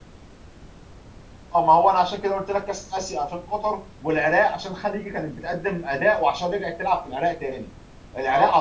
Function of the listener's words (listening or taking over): listening